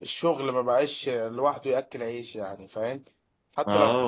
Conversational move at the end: taking over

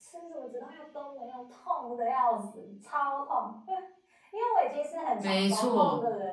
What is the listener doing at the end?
listening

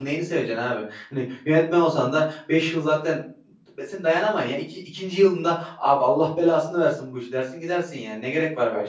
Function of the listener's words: taking over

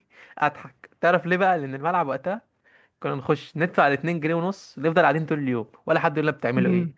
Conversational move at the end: taking over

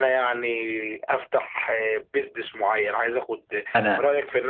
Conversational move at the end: listening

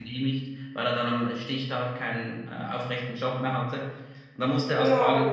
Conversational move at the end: taking over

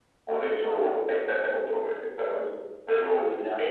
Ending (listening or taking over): listening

